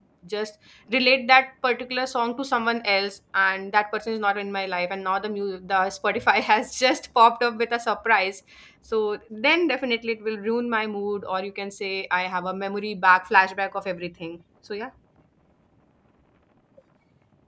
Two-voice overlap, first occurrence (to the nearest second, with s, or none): none